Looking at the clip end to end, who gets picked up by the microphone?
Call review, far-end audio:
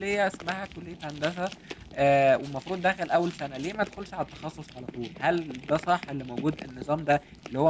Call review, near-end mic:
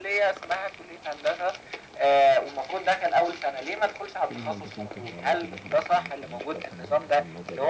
both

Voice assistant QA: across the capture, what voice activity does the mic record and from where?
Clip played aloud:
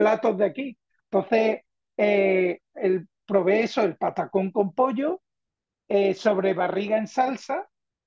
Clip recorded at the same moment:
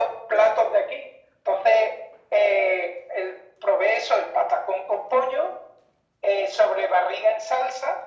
echo only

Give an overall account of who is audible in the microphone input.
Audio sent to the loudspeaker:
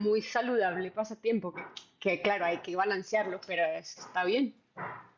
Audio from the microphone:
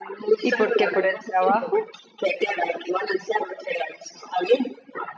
both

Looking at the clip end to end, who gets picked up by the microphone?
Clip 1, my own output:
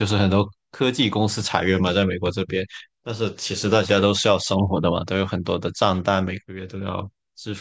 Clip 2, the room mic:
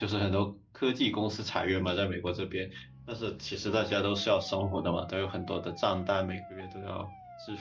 echo only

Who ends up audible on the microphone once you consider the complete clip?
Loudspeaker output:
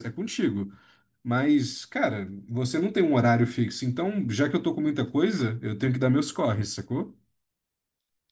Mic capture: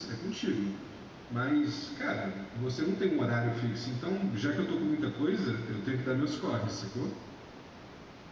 echo only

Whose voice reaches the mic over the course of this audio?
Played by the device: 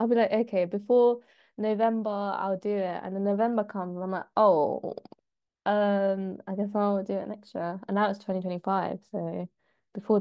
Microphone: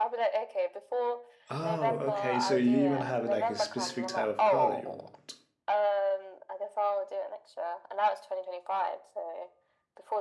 both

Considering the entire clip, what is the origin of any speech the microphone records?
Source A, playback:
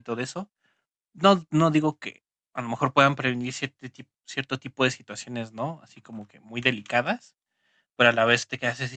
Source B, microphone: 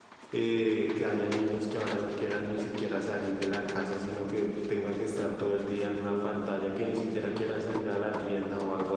user only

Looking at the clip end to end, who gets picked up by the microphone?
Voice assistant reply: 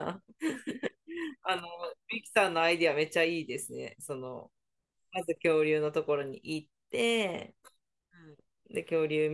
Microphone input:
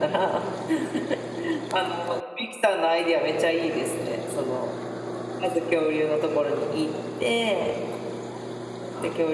echo only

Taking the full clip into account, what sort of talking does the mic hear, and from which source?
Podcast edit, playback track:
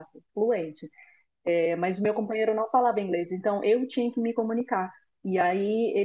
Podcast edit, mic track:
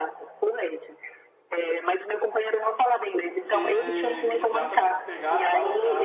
both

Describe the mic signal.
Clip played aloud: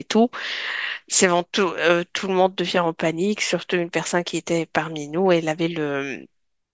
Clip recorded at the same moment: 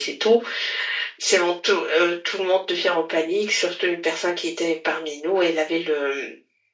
echo only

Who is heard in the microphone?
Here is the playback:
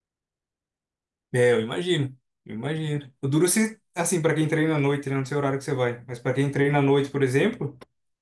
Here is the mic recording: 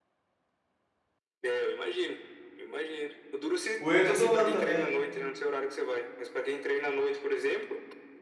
both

